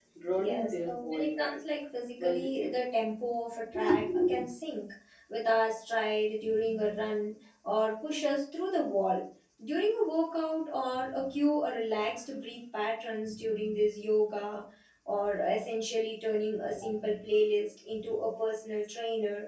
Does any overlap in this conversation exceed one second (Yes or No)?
Yes